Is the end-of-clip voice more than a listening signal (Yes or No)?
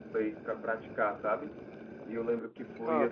No